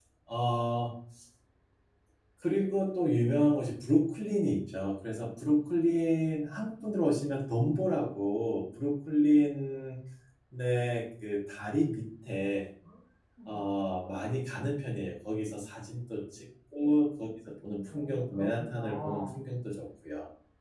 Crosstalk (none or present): present